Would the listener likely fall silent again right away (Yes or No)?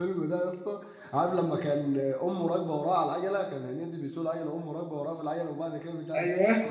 Yes